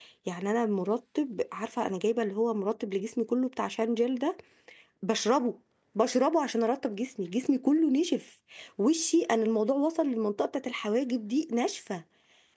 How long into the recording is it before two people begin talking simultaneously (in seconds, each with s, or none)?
none